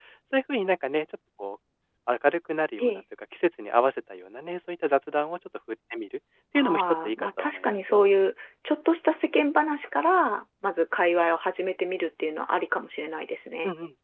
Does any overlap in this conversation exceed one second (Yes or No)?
Yes